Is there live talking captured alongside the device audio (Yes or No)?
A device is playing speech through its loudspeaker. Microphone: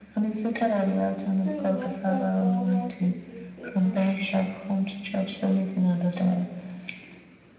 Yes